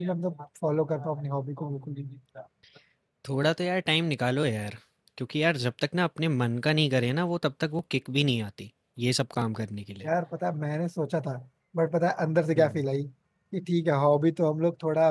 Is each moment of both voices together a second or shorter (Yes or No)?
Yes